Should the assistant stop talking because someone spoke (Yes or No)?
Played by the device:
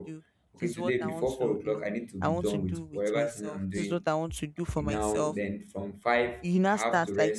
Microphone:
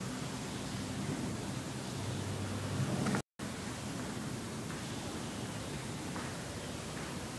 No